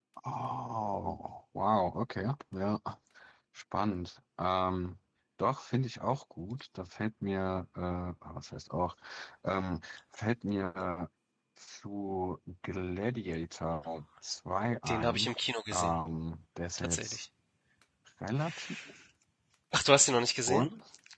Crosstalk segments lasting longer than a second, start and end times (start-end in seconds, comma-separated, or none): none